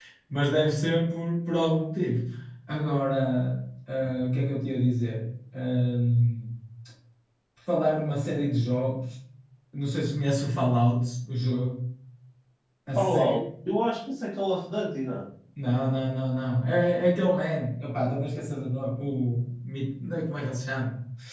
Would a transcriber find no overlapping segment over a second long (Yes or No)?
Yes